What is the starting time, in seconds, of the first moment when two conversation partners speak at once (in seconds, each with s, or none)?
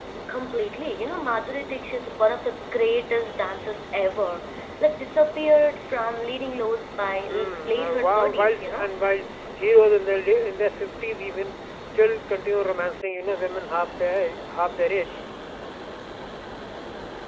7.3 s